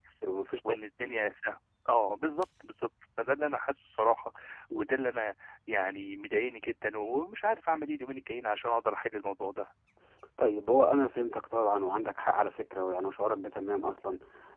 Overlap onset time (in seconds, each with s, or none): none